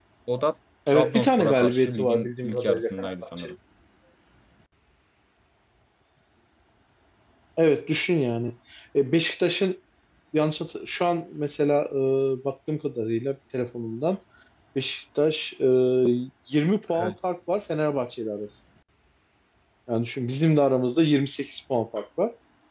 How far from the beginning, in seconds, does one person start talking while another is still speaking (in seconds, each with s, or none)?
0.9 s